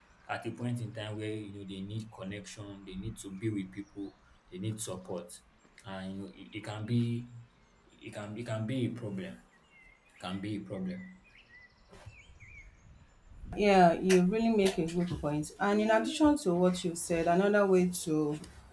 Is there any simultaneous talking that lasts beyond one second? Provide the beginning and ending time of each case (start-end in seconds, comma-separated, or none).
none